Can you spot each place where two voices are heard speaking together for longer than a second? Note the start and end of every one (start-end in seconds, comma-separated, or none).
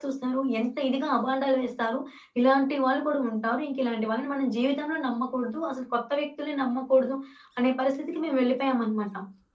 none